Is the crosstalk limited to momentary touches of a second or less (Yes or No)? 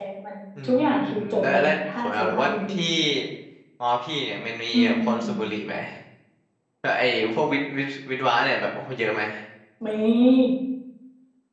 No